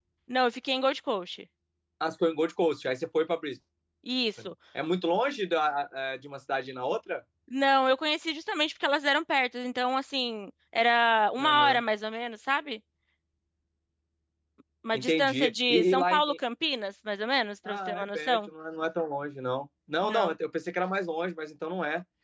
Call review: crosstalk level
present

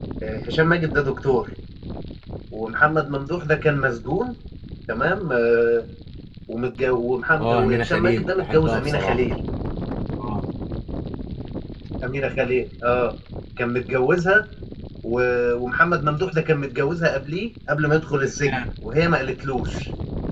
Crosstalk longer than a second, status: present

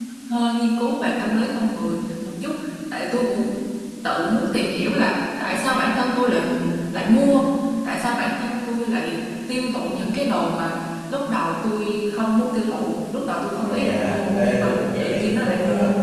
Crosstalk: present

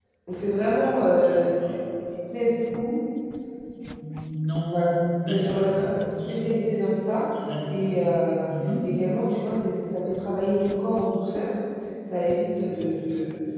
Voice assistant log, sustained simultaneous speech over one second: none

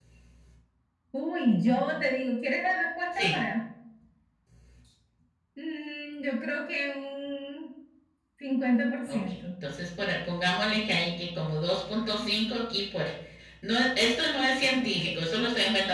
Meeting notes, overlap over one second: none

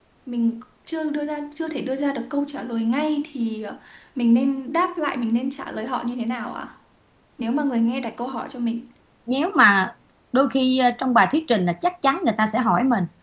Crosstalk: none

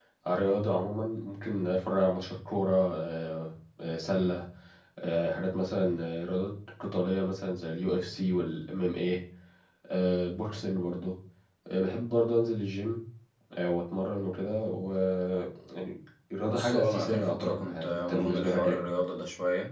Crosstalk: present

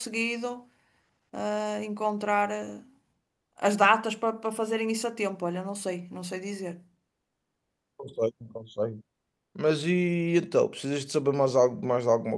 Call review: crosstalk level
none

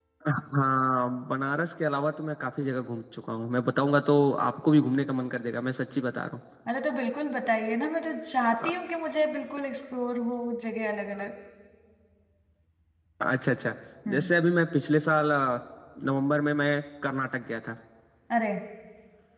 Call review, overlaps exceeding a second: none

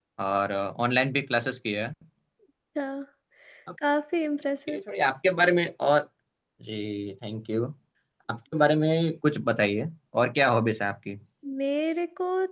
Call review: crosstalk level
none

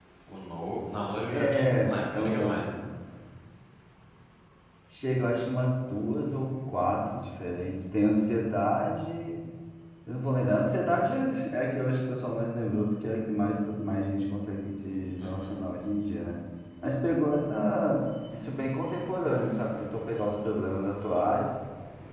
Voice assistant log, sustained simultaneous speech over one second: present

